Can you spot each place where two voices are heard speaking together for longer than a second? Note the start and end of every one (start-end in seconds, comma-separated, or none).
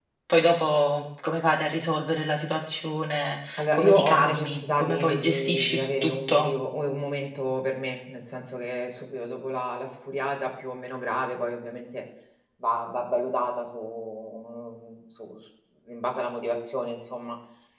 3.6-6.5